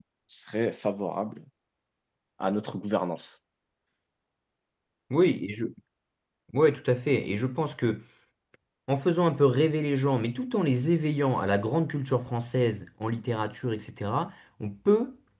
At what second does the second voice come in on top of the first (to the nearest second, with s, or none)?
none